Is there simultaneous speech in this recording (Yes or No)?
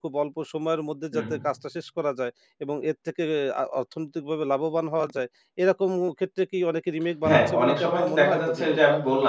Yes